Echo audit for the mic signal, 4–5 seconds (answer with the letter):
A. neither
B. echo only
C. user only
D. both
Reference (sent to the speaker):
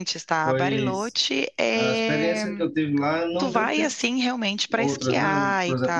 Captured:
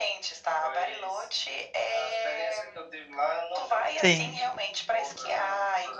D